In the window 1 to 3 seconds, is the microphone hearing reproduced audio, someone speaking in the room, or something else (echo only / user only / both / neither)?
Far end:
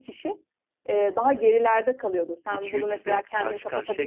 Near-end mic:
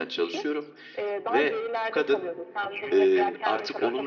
both